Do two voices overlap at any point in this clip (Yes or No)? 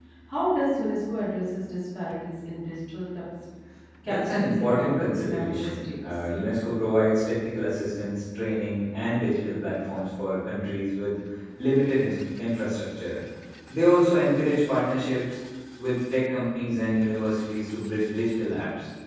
Yes